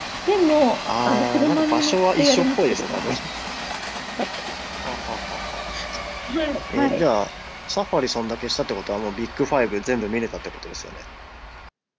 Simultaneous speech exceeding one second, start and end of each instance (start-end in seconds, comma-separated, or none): 1.0-3.1